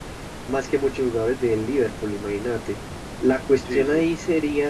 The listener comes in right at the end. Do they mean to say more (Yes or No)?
No